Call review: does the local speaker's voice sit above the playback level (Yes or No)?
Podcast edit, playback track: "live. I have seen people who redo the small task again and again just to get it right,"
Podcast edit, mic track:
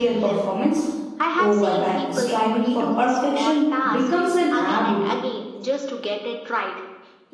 Yes